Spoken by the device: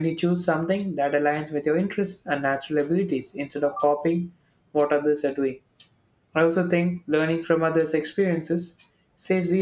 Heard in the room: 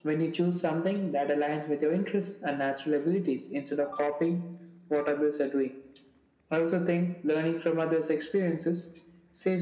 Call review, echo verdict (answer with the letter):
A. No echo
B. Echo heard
B